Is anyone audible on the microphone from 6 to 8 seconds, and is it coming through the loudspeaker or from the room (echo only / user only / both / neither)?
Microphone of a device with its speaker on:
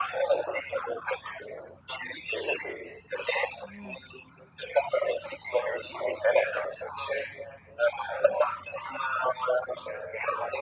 echo only